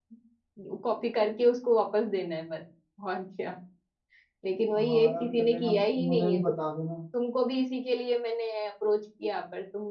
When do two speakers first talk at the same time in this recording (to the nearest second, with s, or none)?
5 s